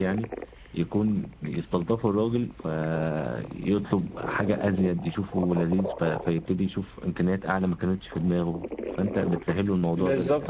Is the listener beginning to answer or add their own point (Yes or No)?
Yes